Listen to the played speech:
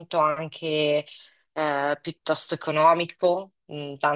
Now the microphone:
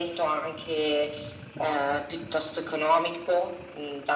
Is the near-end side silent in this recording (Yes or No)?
No